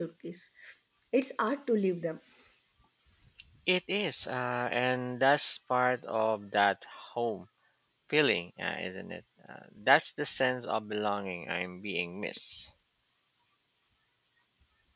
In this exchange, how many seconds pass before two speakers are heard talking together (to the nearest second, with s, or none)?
none